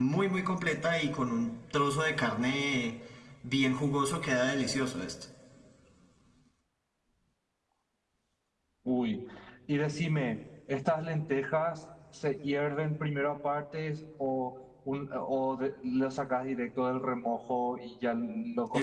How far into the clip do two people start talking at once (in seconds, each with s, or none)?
none